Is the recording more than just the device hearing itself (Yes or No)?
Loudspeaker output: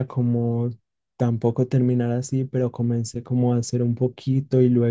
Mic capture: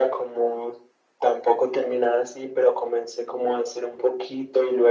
No